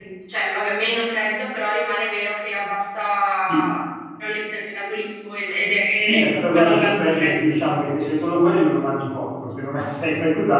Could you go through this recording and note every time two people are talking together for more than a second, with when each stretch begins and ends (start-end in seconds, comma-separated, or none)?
6.0-7.3